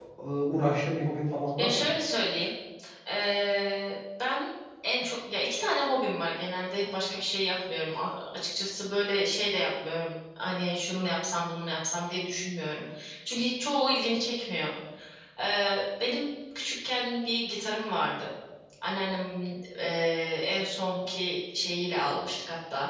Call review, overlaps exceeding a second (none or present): none